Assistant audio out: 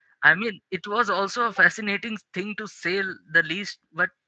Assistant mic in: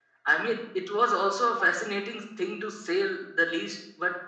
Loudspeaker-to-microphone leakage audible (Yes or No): Yes